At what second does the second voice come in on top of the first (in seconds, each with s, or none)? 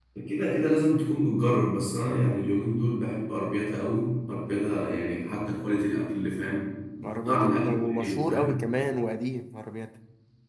7.2 s